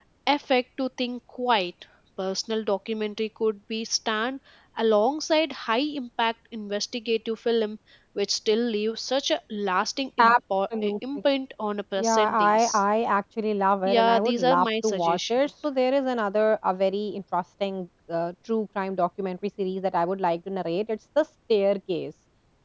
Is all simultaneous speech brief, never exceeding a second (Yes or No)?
No